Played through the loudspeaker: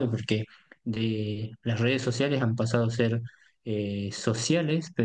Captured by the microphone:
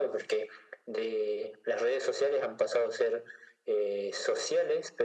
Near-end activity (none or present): none